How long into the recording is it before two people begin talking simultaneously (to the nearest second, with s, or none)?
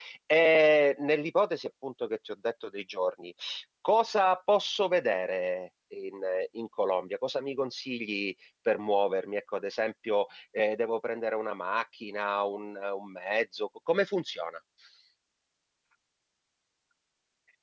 none